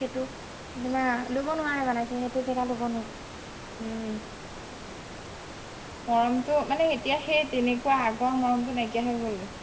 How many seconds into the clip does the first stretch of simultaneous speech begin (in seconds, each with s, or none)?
none